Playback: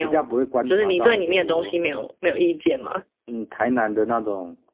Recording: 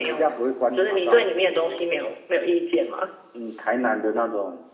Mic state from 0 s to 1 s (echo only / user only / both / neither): echo only